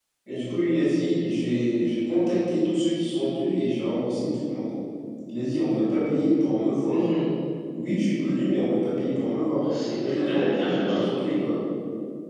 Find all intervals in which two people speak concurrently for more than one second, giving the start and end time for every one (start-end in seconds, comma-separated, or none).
9.6-11.3